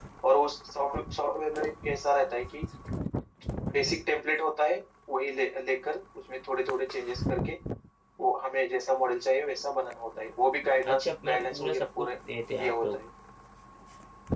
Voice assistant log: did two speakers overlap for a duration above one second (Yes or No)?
Yes